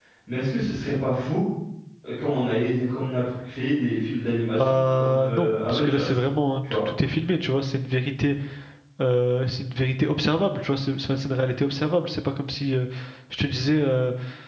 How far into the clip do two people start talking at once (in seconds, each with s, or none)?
4.6 s